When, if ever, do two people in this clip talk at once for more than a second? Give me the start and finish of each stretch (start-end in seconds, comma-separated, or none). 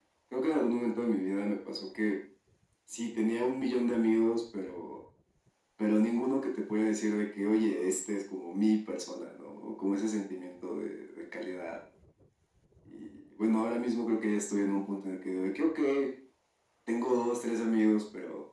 none